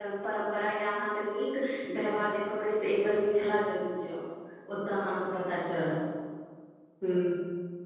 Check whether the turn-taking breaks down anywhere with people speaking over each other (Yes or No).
No